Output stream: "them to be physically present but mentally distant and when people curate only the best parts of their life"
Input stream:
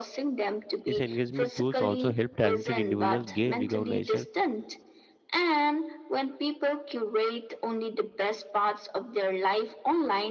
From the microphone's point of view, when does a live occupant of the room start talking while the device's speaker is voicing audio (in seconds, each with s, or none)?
0.8 s